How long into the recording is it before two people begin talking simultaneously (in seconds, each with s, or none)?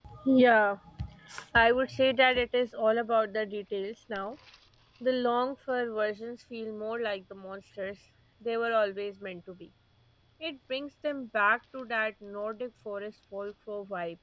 none